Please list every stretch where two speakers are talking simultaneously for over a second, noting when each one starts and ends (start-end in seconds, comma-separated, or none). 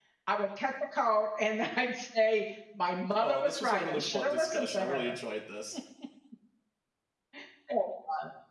3.2-5.2